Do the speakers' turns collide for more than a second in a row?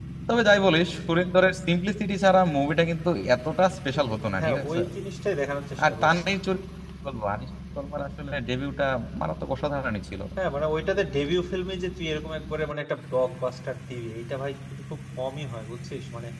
No

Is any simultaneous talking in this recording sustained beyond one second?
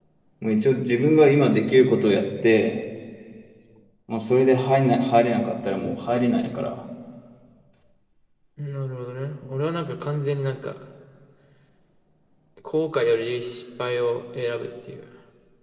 No

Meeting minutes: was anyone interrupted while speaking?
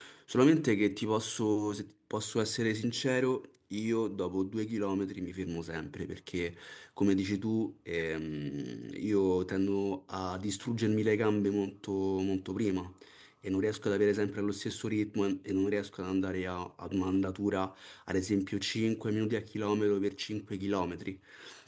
No

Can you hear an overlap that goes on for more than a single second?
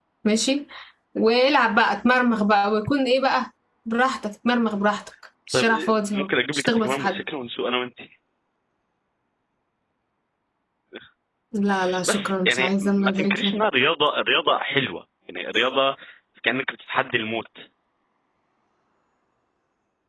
Yes, from 5.5 s

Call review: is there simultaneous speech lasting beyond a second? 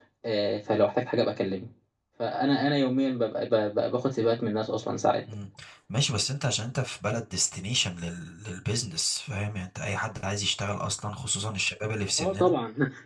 No

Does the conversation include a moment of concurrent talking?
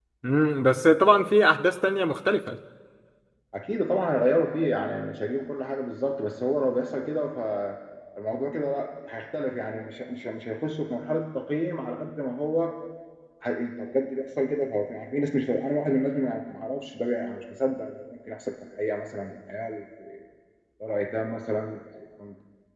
No

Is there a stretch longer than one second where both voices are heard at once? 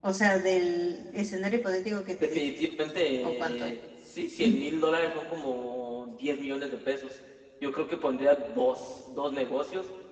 No

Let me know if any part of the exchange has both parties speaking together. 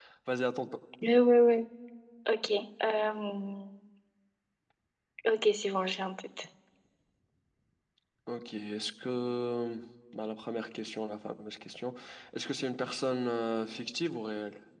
No

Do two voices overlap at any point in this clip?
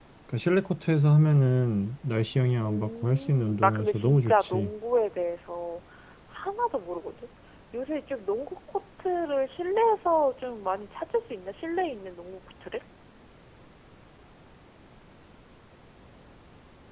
Yes, from 2.6 s

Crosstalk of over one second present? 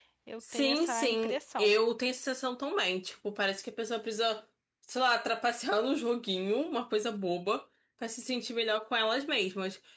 Yes, from 0.5 s

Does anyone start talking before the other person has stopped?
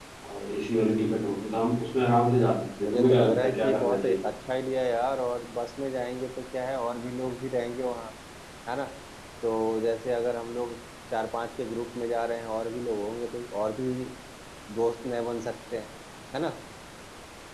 Yes, from 2.8 s

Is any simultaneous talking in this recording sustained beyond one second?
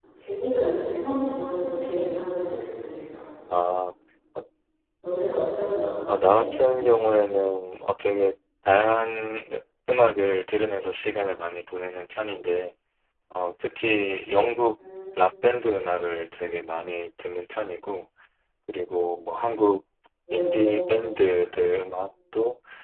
No

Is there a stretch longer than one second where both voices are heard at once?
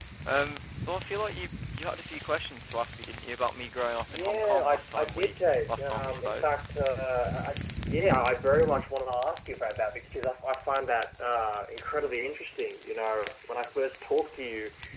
Yes, from 4.1 s

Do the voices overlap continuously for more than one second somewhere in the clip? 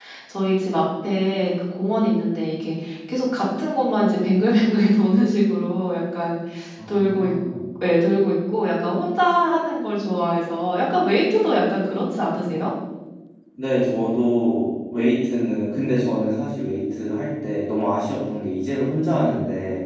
No

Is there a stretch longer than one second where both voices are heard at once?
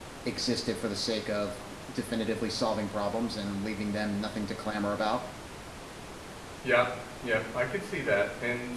No

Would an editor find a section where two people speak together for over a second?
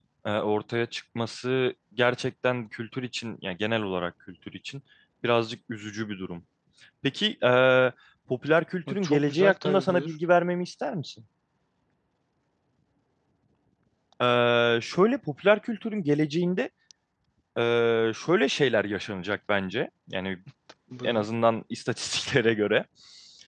Yes, from 8.9 s

